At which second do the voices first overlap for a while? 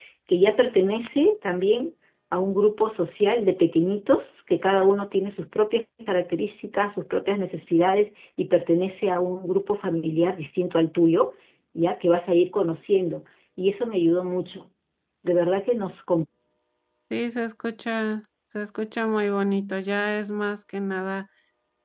none

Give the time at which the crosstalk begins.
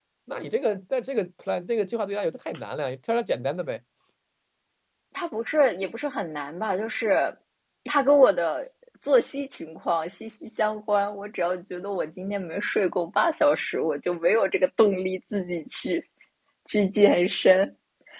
none

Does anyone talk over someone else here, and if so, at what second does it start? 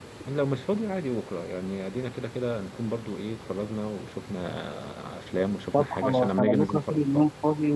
5.7 s

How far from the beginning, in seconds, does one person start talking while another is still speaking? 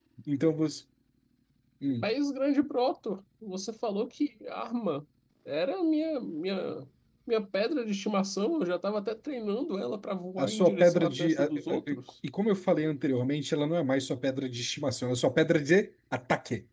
10.4 s

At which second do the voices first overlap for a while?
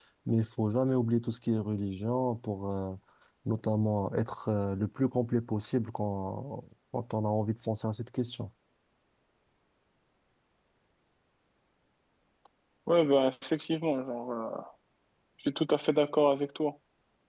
none

